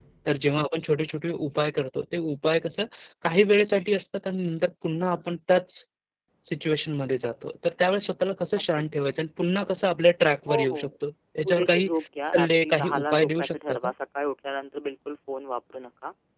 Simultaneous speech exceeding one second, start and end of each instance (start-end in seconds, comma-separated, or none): 12.3-13.9